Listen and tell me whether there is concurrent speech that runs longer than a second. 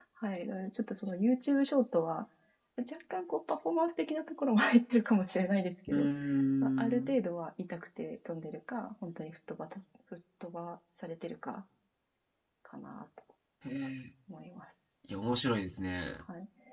No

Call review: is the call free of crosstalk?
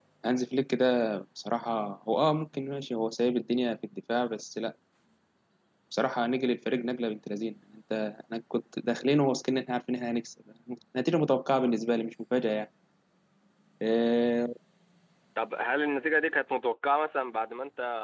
Yes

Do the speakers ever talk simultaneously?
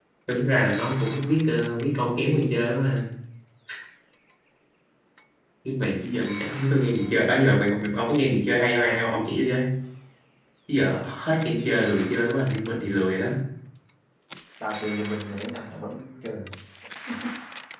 No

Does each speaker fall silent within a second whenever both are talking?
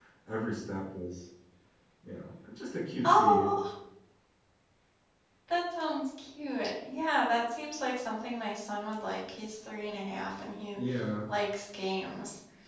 Yes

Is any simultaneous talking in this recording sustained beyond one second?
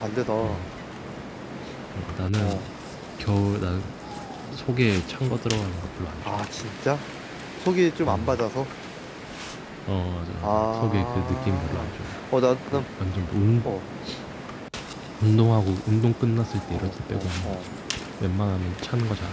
Yes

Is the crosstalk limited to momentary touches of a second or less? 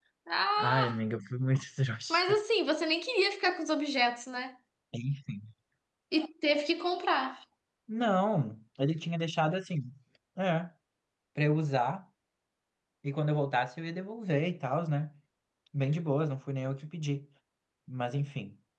Yes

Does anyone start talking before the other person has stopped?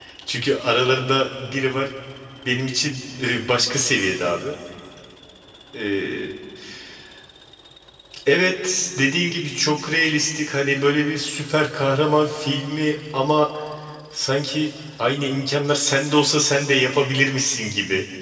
No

